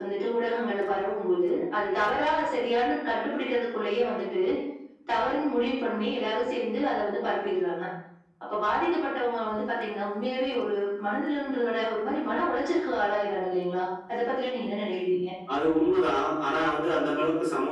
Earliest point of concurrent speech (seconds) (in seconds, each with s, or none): none